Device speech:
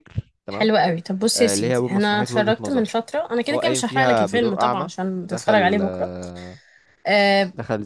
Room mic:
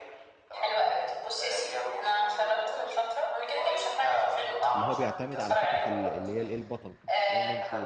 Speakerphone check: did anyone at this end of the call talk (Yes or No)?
Yes